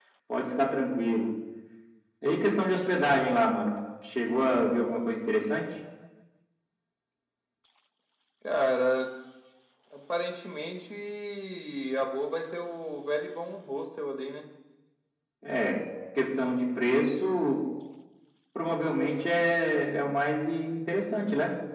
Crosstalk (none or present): none